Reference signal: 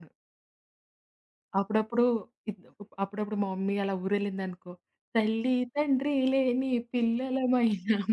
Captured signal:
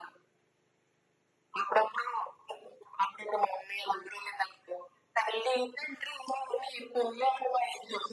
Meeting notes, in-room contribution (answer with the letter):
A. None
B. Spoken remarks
A